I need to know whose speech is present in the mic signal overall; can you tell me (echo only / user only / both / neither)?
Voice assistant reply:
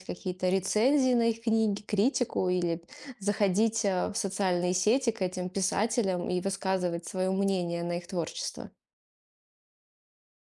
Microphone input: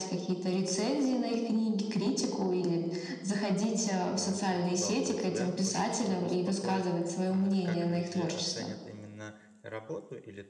both